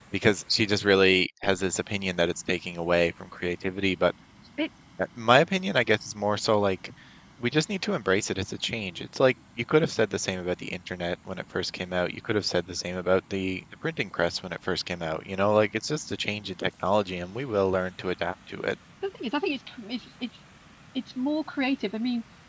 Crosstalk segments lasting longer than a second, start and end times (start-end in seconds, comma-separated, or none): none